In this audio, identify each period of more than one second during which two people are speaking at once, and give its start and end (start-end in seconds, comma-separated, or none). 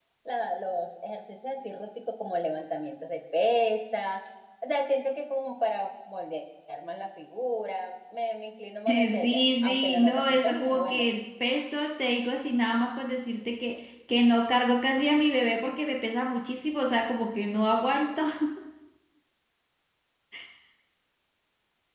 8.9-11.1